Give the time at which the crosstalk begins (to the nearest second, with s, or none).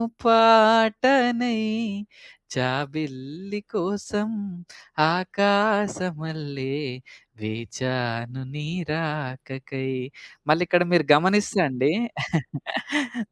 none